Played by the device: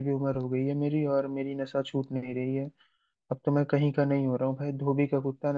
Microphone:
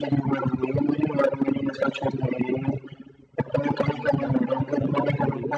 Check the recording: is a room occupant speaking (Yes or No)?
Yes